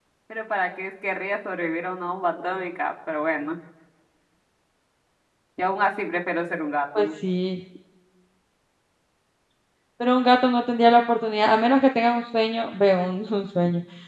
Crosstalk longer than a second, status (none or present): none